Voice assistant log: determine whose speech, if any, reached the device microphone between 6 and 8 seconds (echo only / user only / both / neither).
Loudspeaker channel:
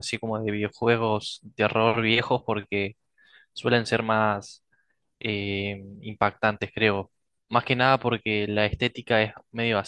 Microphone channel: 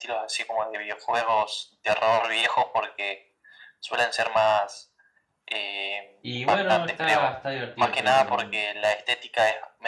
both